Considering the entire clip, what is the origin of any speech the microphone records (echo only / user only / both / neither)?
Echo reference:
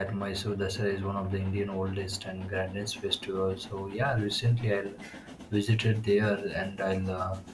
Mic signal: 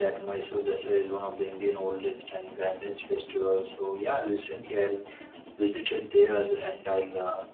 echo only